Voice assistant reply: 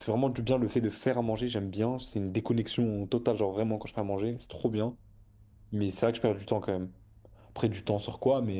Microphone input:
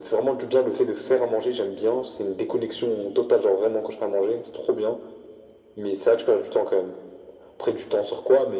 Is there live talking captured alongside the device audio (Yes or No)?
No